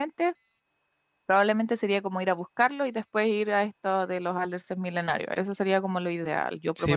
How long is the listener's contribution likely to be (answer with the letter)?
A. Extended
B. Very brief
A